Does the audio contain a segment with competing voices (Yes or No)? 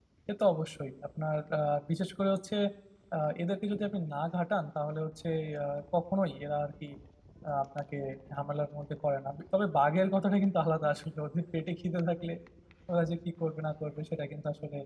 No